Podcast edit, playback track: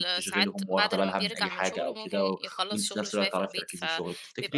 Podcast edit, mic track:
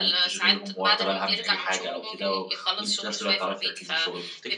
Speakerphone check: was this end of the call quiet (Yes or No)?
Yes